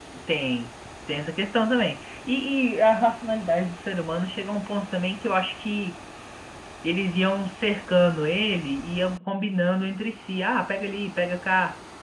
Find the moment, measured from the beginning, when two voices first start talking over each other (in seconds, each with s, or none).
none